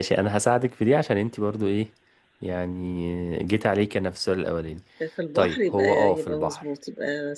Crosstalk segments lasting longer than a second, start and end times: 5.3-6.6

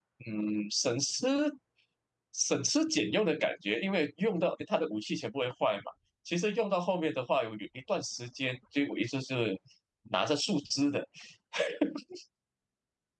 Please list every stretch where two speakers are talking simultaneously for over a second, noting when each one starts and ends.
none

